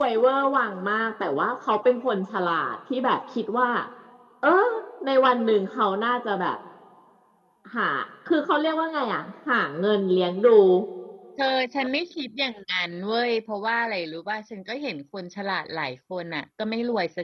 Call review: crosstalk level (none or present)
none